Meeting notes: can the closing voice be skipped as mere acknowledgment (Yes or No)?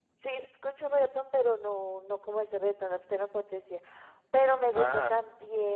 Yes